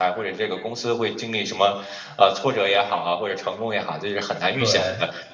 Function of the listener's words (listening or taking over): listening